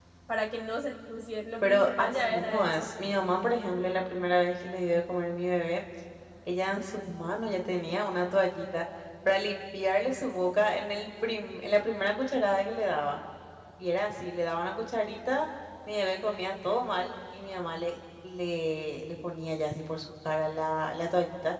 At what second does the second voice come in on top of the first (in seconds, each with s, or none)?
1.6 s